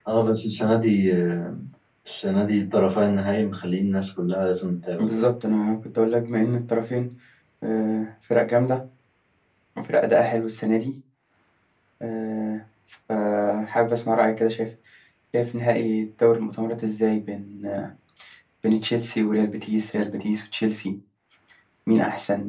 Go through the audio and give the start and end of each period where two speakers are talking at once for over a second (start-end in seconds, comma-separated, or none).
none